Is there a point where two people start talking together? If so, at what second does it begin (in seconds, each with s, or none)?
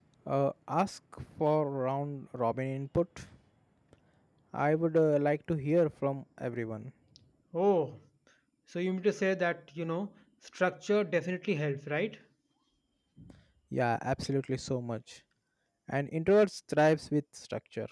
none